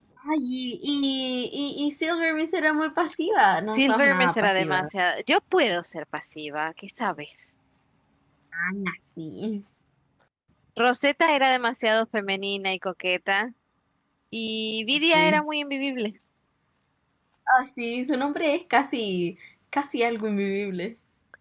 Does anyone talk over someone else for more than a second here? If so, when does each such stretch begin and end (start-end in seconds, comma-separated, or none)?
3.6-4.9